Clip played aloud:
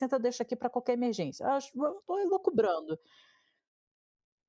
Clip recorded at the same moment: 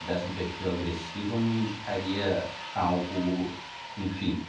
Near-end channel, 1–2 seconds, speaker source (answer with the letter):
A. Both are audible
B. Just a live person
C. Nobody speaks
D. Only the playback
B